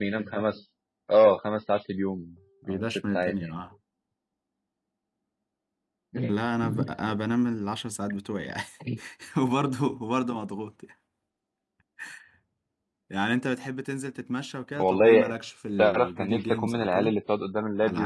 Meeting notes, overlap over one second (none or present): present